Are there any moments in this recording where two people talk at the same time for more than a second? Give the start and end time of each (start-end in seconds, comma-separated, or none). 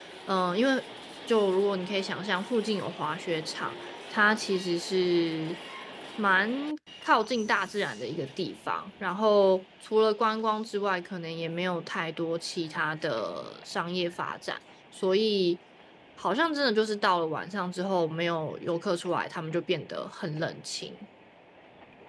none